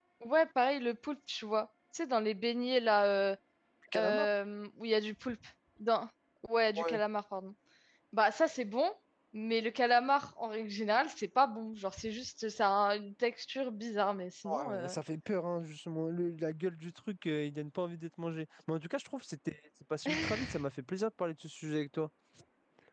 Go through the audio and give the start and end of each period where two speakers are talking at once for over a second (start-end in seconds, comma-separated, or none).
none